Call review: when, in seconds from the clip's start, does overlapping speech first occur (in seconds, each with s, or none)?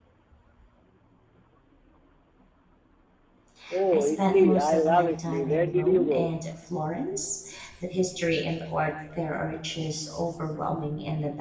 3.9 s